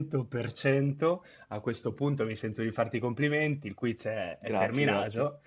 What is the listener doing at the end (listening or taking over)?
listening